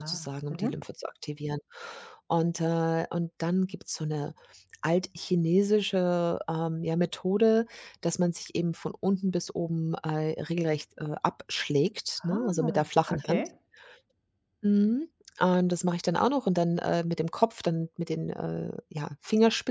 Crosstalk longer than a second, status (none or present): present